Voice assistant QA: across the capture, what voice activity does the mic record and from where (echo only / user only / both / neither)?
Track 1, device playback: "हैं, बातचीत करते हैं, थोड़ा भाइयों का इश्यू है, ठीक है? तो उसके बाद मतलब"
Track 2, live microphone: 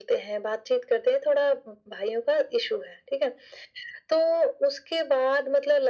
echo only